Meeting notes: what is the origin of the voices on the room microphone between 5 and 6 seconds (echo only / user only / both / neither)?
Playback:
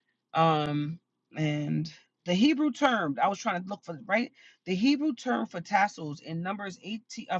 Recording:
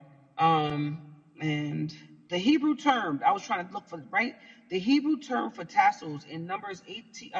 echo only